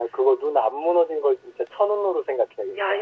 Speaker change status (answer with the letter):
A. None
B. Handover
B